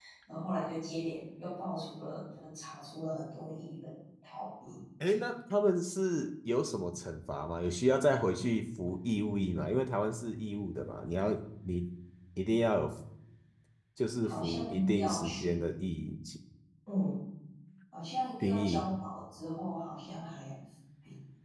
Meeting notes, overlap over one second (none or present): present